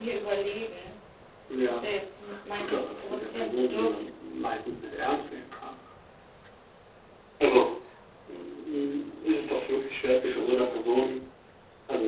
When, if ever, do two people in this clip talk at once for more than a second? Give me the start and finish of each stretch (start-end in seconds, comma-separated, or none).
2.5-4.1